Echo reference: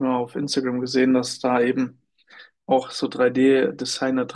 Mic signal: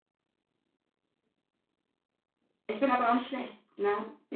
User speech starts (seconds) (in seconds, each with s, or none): 2.7 s